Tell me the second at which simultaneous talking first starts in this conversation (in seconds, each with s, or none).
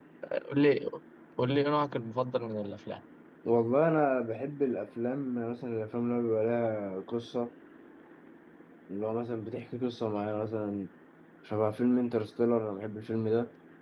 none